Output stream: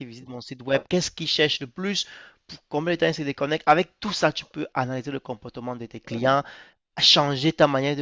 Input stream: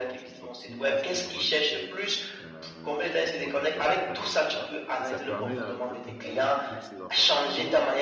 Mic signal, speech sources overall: both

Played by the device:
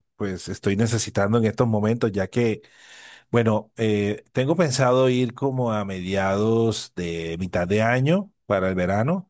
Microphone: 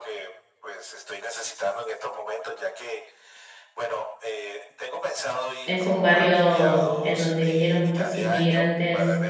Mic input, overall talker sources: both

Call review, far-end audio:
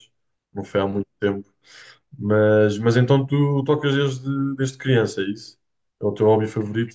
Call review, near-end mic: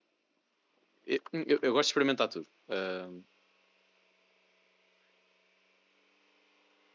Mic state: user only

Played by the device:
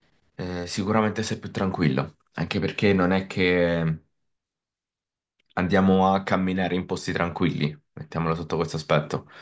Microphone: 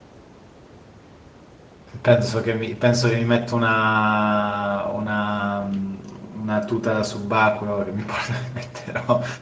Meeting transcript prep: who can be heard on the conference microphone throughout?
user only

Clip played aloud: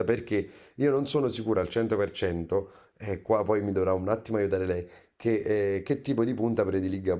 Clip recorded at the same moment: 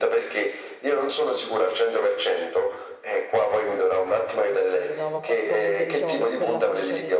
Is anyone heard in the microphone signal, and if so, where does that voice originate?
both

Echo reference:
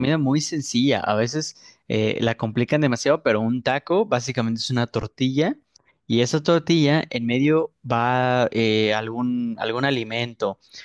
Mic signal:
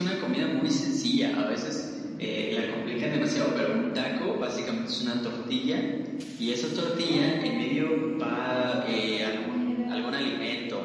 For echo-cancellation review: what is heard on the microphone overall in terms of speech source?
both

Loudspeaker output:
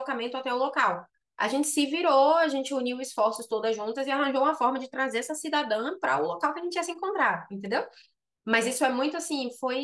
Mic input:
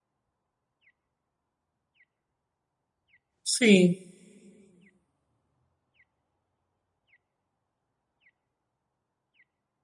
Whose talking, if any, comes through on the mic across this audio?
user only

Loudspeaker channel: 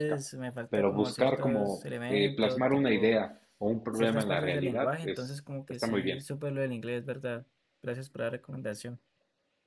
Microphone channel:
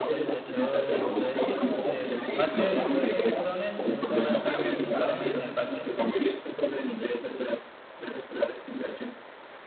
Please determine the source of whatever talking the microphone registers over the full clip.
both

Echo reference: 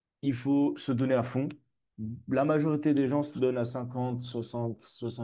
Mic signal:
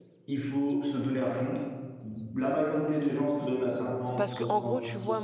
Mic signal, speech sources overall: both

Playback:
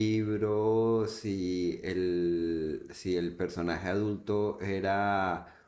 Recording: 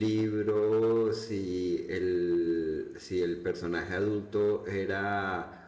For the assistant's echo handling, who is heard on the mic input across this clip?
echo only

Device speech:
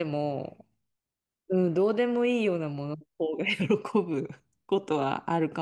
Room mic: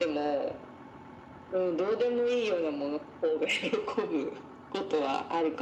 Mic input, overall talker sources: echo only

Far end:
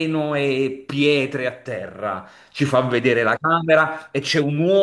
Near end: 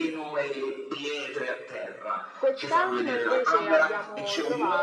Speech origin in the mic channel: both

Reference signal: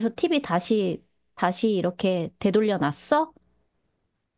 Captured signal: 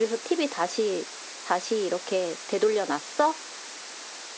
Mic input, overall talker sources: echo only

